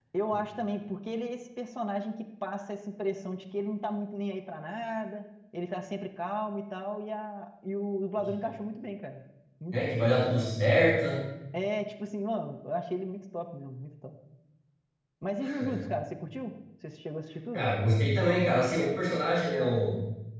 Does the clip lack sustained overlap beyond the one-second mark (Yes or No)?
Yes